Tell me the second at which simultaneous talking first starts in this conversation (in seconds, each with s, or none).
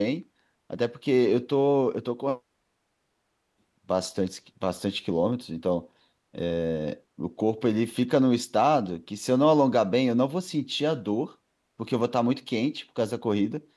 none